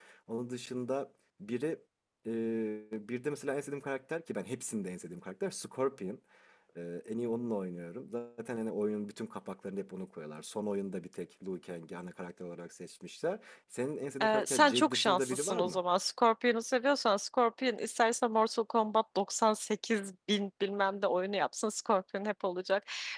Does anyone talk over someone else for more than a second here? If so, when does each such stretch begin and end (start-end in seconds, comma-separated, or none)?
14.2-15.8